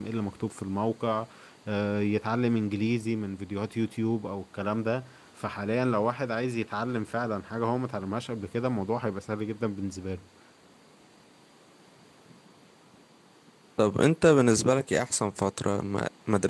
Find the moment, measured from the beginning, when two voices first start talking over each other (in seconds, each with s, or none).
none